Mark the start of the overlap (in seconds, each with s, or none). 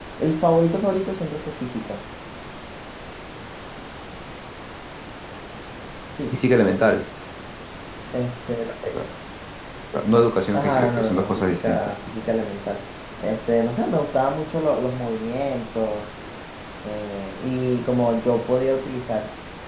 10.5 s